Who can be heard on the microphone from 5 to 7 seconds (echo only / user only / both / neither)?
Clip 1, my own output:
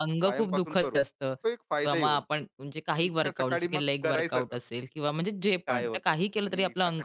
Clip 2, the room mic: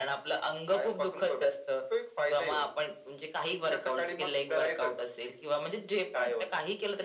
echo only